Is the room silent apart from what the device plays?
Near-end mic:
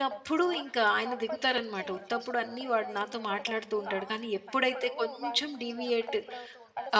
No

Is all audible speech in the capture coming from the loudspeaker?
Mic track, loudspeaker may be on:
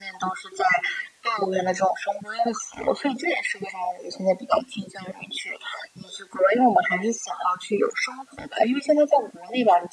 Yes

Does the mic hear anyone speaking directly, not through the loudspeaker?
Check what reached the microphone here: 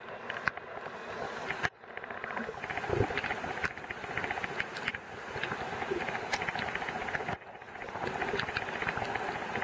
No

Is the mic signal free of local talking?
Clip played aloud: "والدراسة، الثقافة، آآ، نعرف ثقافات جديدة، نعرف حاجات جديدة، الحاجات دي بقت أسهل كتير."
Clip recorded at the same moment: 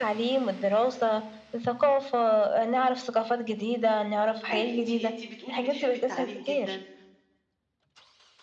No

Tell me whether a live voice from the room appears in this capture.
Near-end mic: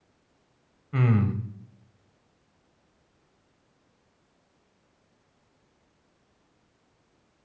Yes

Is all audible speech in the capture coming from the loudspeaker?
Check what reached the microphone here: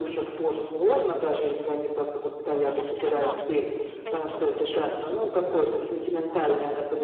No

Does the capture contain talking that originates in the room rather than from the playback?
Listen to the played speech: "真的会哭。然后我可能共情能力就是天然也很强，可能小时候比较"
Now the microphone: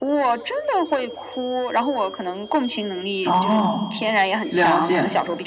Yes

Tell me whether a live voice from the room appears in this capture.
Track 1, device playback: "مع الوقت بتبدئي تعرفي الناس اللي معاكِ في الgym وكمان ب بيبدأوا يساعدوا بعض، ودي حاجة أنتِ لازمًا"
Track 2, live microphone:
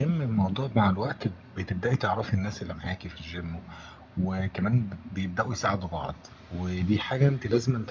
No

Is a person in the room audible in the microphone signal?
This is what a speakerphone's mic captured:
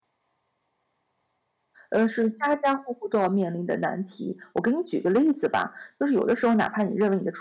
Yes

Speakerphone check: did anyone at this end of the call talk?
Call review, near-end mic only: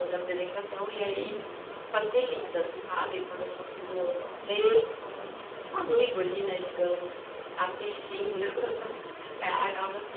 Yes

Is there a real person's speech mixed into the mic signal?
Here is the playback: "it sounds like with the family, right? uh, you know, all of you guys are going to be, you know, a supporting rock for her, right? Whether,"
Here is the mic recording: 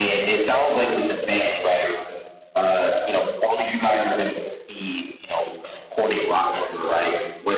No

